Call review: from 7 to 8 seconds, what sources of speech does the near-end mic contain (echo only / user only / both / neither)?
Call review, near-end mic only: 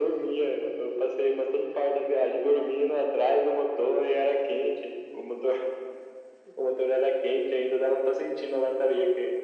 echo only